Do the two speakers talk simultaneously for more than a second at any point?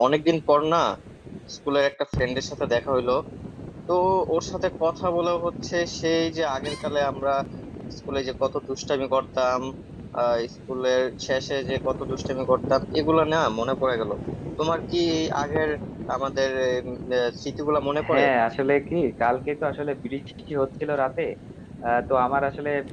No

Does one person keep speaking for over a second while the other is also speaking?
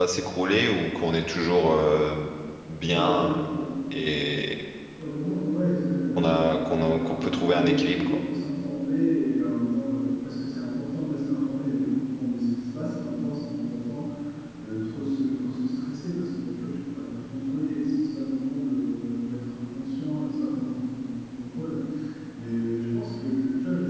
Yes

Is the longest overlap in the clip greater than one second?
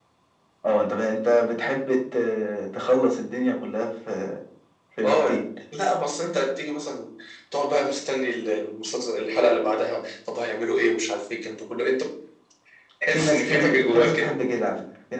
Yes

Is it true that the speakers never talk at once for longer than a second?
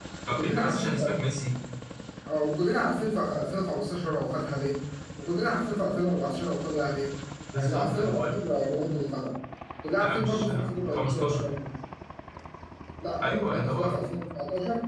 No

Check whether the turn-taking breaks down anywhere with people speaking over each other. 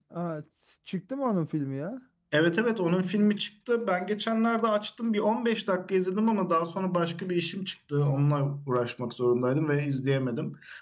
No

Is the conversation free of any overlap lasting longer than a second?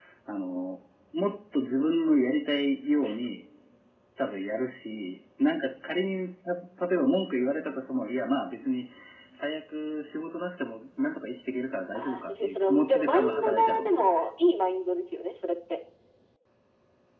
No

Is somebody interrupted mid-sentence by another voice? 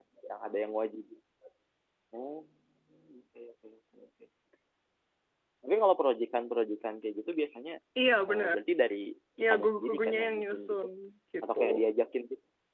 Yes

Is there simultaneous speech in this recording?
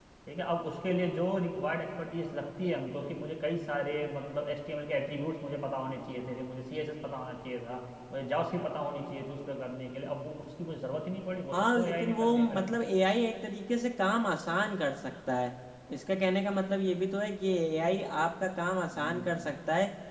Yes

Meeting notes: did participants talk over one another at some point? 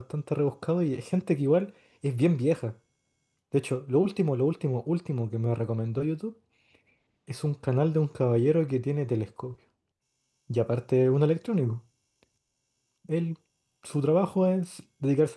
No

